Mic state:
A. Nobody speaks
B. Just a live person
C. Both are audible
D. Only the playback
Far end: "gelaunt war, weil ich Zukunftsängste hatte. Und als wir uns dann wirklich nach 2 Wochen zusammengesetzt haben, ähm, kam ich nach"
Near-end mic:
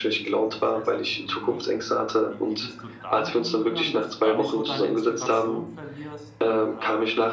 C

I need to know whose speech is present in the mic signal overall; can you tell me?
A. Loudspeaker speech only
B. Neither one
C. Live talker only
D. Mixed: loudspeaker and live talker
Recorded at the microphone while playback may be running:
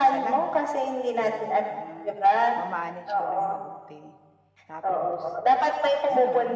D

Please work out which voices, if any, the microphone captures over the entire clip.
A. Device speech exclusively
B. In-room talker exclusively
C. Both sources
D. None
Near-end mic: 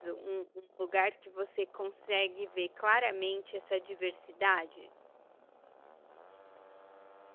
B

